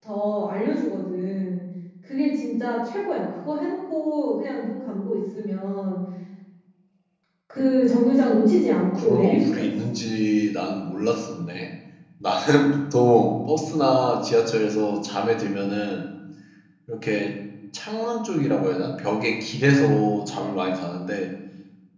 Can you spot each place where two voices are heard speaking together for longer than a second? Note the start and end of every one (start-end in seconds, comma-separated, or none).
8.4-10.0